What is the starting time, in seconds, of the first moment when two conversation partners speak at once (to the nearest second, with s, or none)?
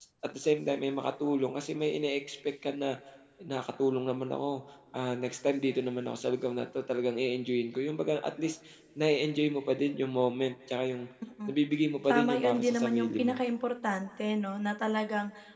12 s